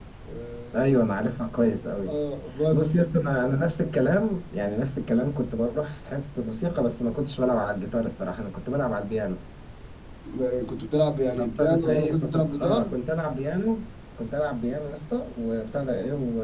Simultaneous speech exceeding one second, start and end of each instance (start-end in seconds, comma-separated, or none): 11.4-13.0